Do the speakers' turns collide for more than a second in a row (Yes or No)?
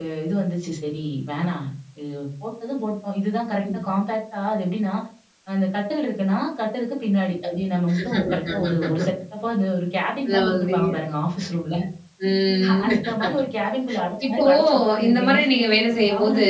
Yes